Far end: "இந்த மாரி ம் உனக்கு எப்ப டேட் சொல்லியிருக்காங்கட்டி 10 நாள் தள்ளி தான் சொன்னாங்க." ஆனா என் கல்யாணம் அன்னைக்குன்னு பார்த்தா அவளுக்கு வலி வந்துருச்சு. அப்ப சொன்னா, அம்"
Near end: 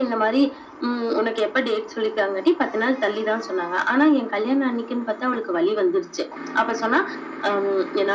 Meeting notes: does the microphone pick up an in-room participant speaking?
No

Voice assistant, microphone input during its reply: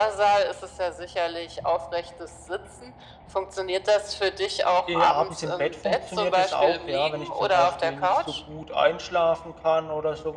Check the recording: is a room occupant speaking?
Yes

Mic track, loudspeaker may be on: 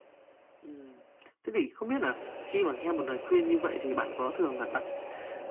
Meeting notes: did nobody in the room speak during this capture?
Yes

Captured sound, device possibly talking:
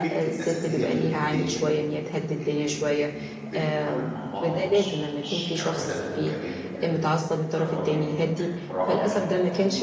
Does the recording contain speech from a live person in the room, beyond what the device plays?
Yes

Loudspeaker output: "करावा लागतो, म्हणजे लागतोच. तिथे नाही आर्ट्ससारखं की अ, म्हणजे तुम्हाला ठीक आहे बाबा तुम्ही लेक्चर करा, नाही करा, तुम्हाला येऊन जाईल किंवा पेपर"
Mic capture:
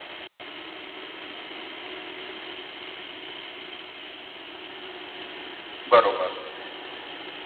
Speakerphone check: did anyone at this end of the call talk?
Yes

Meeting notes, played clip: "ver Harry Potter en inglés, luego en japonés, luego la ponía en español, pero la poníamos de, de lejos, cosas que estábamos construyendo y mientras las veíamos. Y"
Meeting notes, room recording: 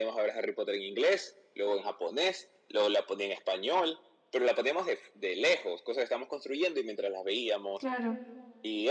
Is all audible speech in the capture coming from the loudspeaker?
No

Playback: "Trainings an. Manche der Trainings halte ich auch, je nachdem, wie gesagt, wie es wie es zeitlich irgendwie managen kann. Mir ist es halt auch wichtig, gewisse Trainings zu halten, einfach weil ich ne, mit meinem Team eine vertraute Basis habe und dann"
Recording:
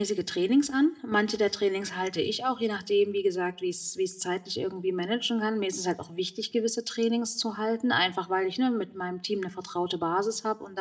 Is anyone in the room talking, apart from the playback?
No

